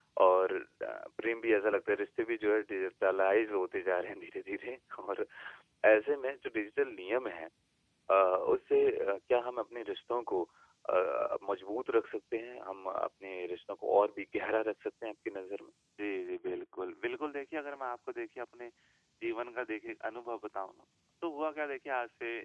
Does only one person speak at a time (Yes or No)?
Yes